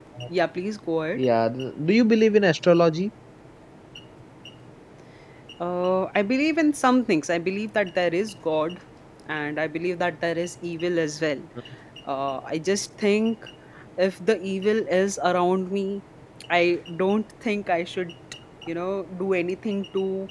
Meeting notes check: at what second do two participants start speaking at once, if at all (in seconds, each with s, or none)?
none